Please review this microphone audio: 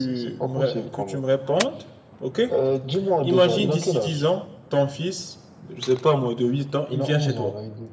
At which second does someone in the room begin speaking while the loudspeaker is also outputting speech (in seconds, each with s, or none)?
none